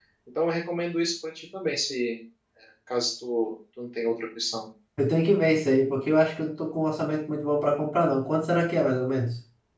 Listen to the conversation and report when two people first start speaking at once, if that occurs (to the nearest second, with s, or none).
none